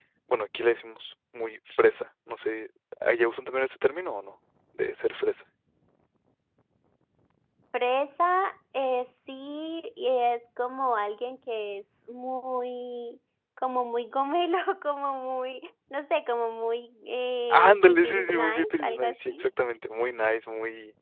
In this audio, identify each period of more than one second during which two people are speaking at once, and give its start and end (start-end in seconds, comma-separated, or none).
17.5-19.4